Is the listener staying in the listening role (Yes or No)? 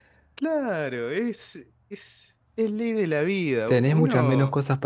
No